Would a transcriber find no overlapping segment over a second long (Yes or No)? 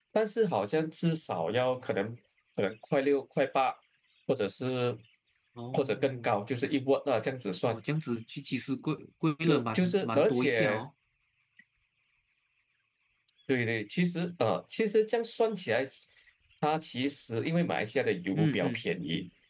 No